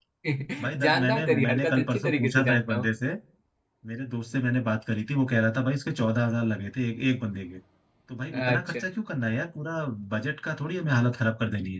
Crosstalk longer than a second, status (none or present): present